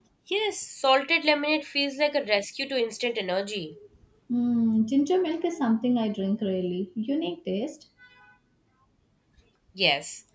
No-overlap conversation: Yes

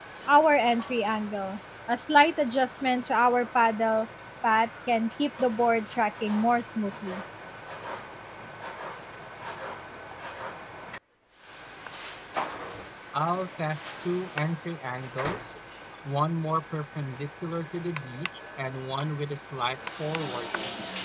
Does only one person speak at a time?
Yes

